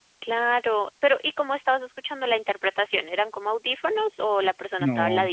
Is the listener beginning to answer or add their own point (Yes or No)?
Yes